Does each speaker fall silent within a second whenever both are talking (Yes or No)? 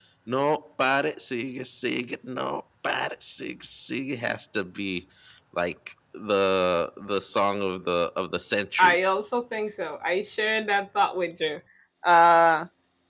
Yes